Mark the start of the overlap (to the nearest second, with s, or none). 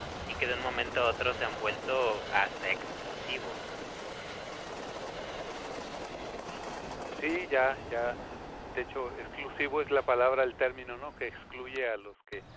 none